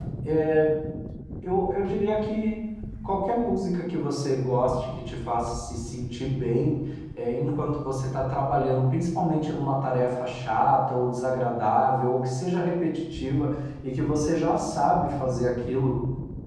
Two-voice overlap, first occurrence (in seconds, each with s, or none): none